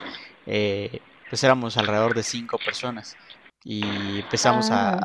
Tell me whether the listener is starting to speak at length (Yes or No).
No